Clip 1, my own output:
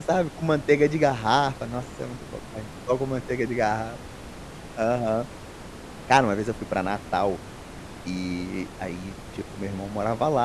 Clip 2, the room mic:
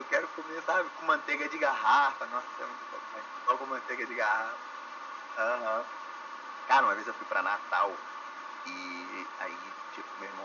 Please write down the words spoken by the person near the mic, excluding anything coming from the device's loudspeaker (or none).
none